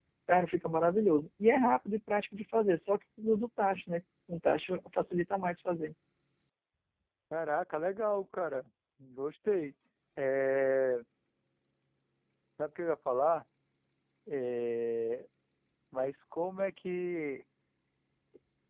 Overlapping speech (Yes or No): No